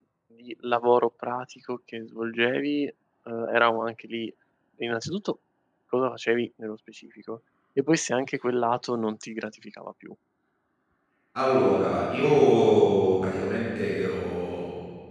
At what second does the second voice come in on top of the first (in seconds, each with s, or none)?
none